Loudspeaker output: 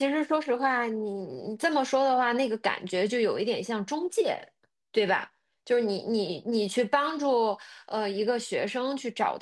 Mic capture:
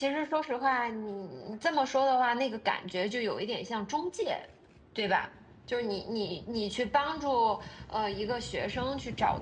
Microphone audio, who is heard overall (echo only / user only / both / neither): echo only